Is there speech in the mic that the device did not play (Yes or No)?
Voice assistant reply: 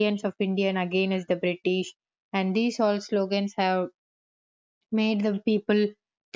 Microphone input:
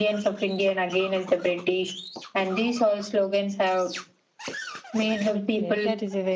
Yes